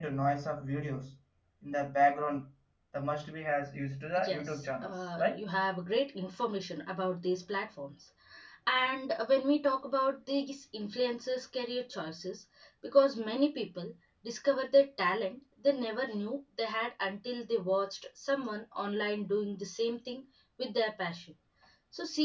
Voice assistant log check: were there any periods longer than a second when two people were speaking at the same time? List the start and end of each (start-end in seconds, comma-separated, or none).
4.2-5.4